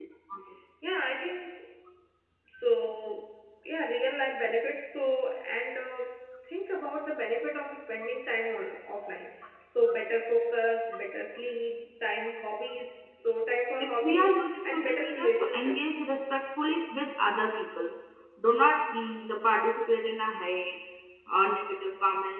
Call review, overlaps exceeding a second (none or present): present